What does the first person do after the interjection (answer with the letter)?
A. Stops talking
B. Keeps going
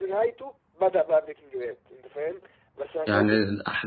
A